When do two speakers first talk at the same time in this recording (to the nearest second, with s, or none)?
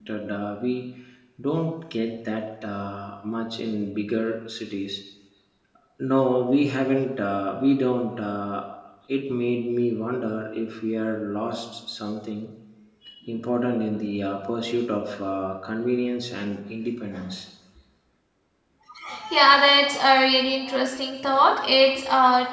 none